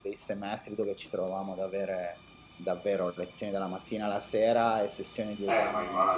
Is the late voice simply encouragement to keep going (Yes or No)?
No